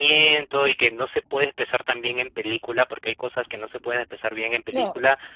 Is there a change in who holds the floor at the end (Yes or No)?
No